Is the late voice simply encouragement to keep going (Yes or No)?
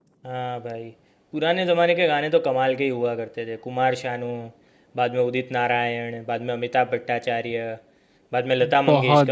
No